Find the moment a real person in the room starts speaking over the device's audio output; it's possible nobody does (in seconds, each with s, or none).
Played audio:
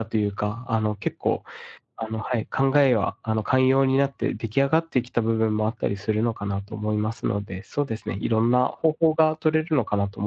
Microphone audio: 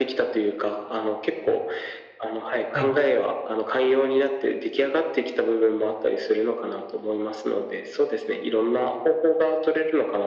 2.7 s